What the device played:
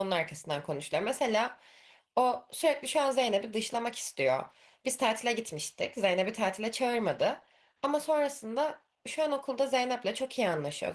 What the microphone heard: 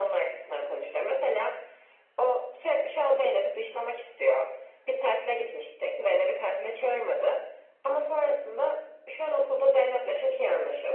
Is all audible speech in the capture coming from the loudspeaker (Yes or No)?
Yes